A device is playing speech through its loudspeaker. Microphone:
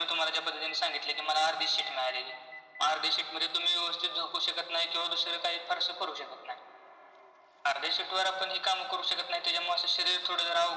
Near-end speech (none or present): none